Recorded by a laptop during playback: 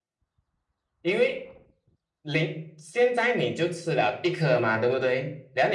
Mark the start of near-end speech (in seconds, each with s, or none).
none